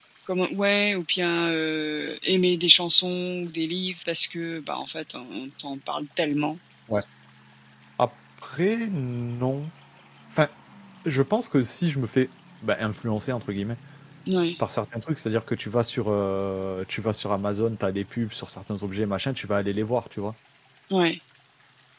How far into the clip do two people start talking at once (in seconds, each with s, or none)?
none